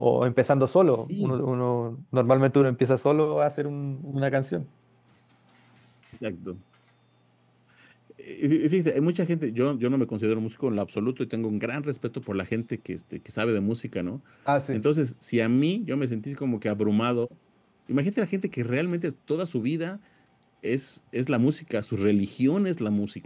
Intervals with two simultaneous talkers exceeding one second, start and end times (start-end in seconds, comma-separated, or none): none